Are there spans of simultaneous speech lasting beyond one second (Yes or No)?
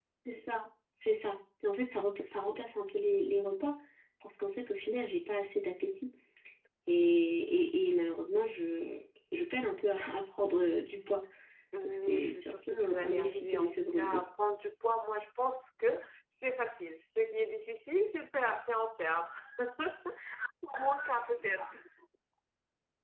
Yes